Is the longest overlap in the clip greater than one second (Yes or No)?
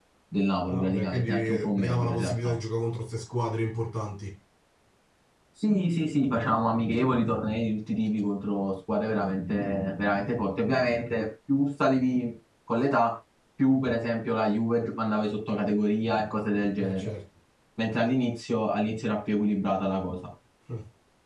Yes